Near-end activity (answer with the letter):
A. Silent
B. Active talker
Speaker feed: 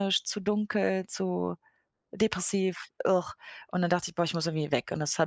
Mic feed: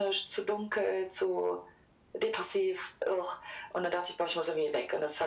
A